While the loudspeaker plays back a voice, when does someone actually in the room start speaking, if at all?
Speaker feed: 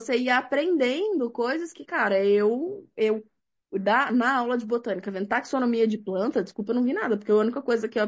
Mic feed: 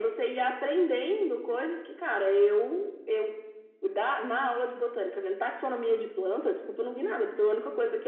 none

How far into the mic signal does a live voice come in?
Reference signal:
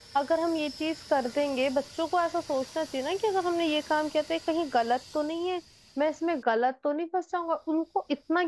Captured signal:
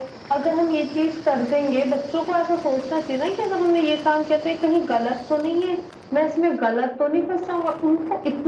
none

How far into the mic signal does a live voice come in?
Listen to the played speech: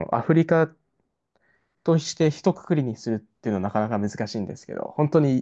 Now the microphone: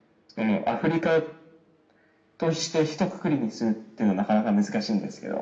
none

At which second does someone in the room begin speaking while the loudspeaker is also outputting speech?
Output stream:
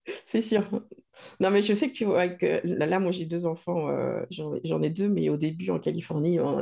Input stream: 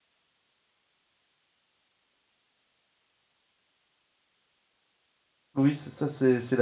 6 s

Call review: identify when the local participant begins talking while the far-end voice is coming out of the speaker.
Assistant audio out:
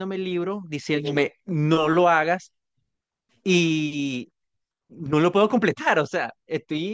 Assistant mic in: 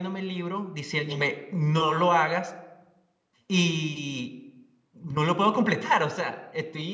none

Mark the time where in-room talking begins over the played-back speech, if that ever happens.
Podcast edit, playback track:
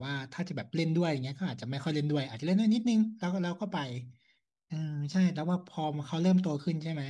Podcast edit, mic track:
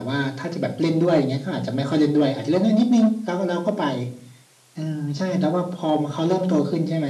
none

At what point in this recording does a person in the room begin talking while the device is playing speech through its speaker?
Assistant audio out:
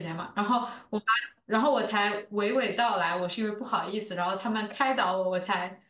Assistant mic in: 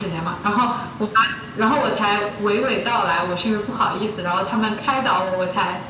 none

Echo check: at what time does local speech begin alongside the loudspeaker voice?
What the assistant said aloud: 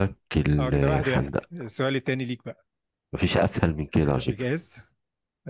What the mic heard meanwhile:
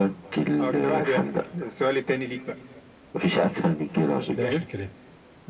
4 s

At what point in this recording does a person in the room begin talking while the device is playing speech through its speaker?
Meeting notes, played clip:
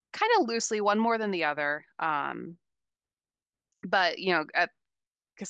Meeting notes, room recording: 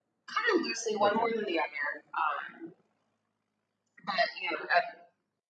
1 s

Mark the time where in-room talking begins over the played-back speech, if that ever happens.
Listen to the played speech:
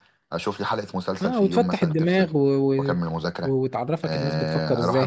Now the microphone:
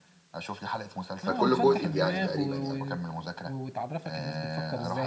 1 s

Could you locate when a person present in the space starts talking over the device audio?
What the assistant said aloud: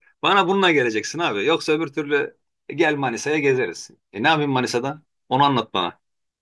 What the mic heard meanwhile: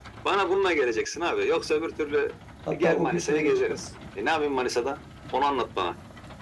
3 s

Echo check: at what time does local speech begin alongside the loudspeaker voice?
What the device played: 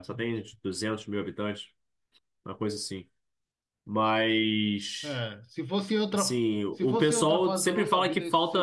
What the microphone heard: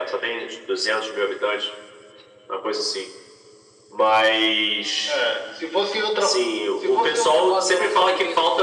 none

